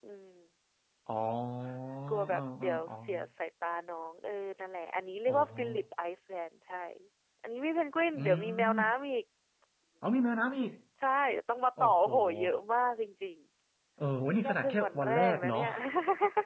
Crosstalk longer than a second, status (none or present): present